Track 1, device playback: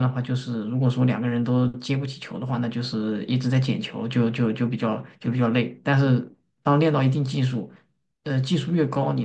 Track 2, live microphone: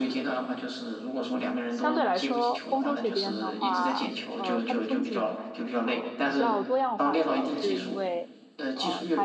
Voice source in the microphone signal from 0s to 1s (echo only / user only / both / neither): echo only